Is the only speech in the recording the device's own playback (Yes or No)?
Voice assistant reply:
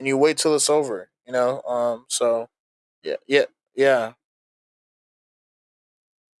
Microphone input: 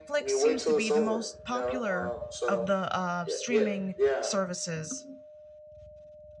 No